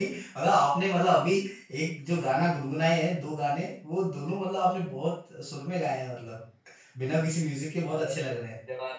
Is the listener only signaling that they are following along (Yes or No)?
No